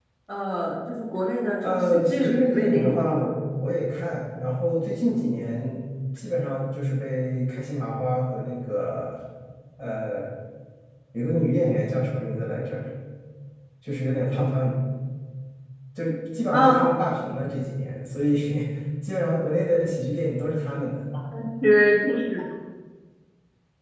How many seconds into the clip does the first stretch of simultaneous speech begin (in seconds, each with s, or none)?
1.7 s